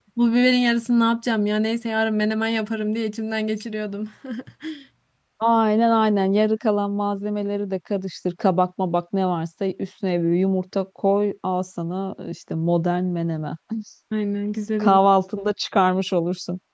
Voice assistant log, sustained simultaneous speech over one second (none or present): none